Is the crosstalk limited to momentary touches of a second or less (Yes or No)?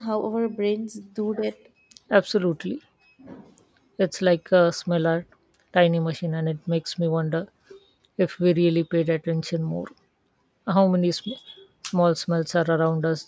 Yes